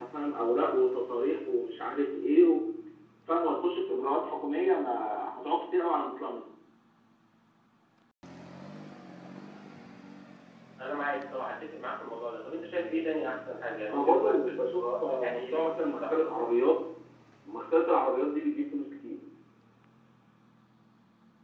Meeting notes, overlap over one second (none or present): present